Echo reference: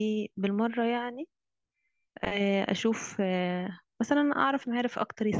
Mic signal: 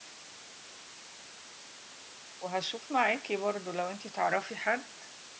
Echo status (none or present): none